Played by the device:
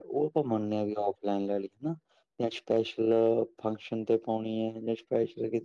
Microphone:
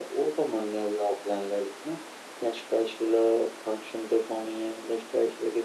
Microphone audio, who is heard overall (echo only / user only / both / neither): echo only